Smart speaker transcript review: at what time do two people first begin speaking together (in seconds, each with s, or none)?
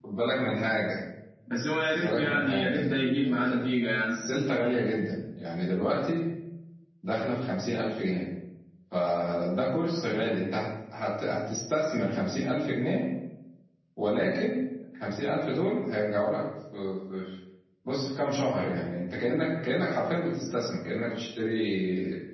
1.9 s